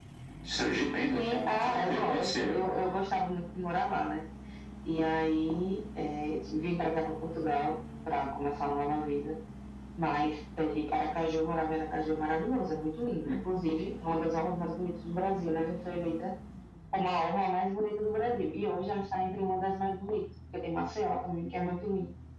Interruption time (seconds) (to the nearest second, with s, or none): 1 s